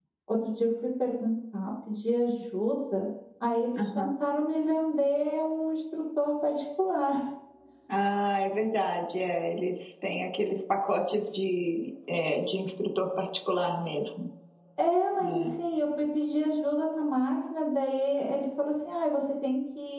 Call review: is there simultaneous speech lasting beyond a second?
No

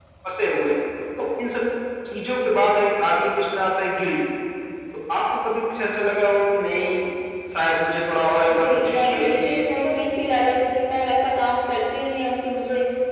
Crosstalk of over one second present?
Yes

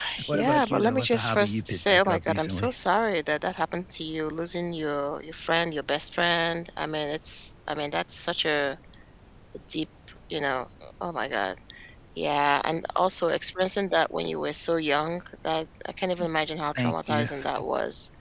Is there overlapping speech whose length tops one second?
Yes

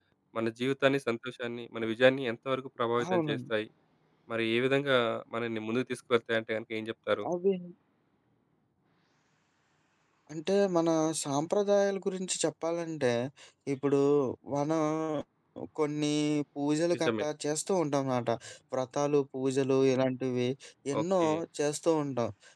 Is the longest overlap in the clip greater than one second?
No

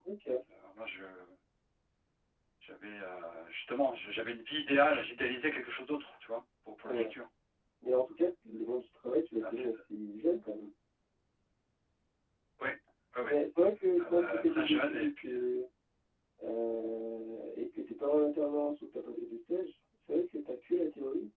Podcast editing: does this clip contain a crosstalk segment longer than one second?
Yes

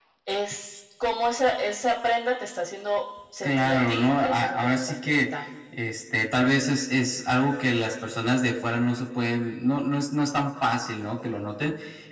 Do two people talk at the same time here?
Yes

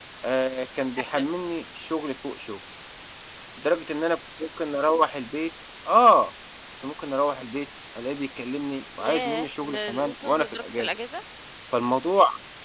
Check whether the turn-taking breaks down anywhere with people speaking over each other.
Yes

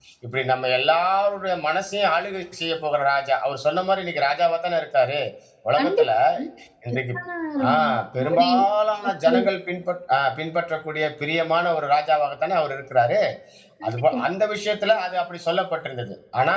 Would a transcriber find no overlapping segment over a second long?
Yes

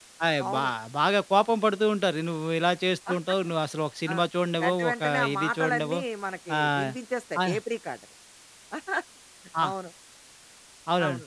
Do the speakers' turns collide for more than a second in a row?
Yes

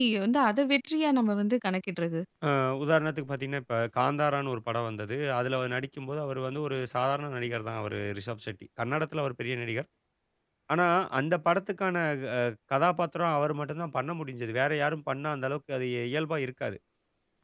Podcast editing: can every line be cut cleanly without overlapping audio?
Yes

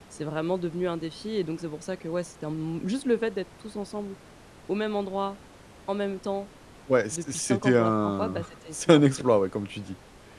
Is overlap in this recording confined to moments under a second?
No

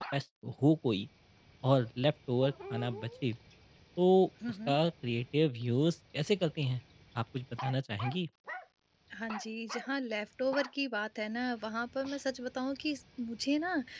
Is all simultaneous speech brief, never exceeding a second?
Yes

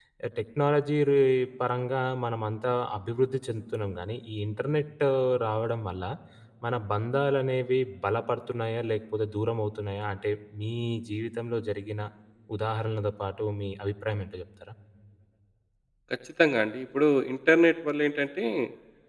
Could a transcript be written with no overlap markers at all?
Yes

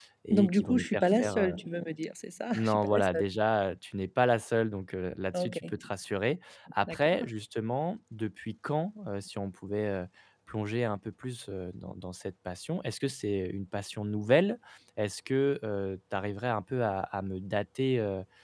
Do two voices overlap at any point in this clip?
Yes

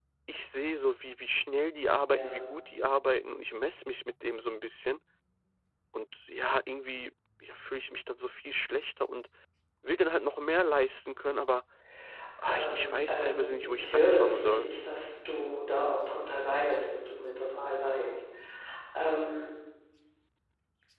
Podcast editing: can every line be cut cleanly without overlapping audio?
No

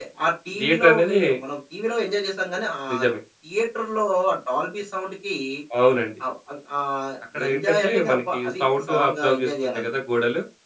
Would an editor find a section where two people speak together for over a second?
Yes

